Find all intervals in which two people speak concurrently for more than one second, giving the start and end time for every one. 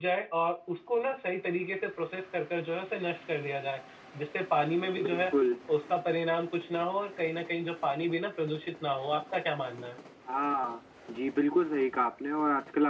none

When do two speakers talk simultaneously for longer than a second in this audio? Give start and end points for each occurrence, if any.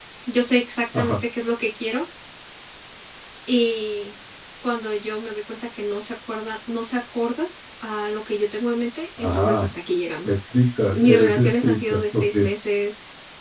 10.9-12.4

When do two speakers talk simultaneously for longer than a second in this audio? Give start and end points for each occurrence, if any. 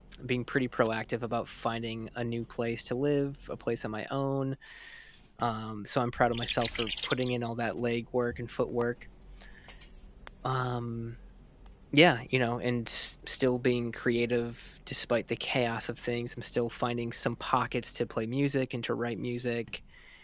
none

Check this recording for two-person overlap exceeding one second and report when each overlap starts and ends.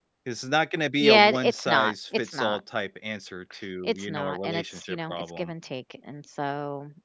1.0-2.6, 3.8-5.5

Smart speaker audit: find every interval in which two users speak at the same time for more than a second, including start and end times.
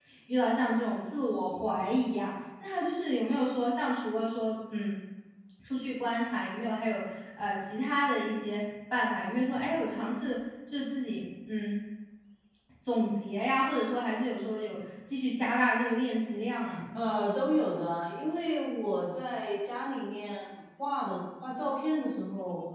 none

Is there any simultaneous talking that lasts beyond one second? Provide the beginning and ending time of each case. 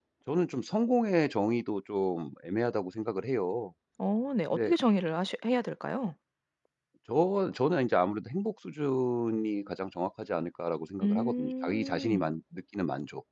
11.0-12.3

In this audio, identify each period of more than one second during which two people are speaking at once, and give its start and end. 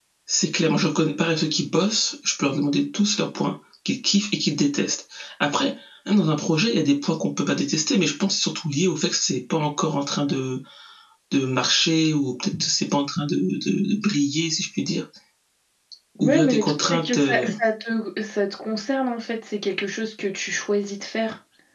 16.2-17.5

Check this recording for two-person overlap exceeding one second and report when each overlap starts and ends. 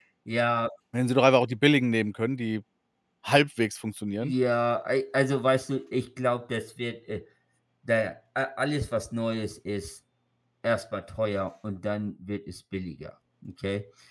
none

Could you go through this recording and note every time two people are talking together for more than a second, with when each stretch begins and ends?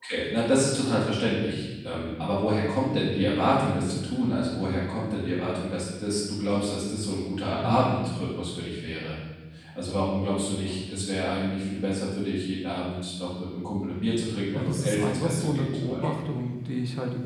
14.5-16.2

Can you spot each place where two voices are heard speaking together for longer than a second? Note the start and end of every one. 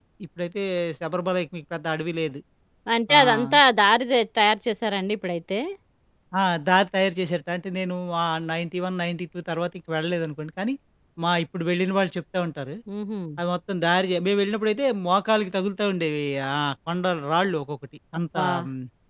none

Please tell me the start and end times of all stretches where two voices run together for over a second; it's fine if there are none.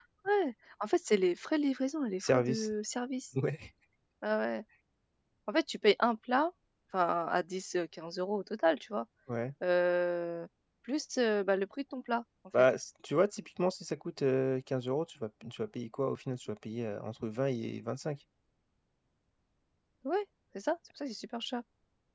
none

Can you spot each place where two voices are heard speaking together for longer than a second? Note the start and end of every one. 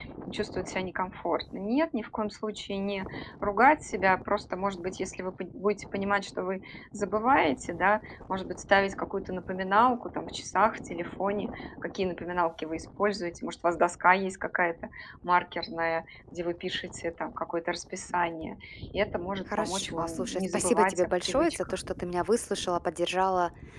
19.5-21.8

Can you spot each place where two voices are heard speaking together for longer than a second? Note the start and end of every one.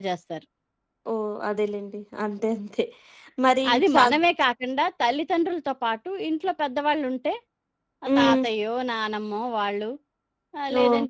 none

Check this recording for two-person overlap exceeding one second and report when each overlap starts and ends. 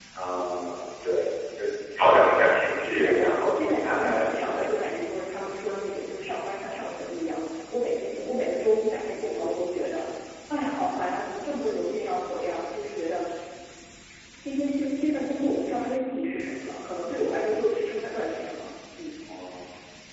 2.8-4.9

